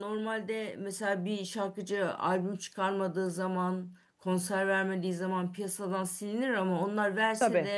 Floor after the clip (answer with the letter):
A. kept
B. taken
A